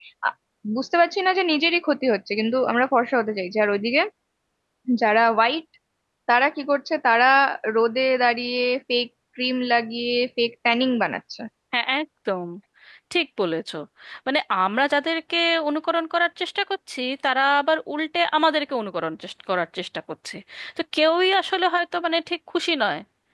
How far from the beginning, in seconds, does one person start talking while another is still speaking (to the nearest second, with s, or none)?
none